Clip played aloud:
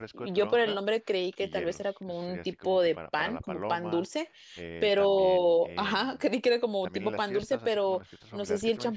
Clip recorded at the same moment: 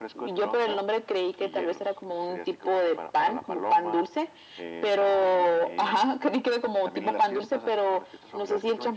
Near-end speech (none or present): none